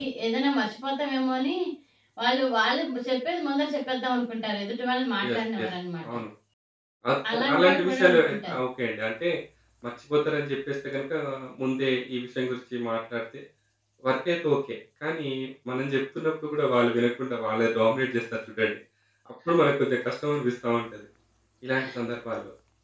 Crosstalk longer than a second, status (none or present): present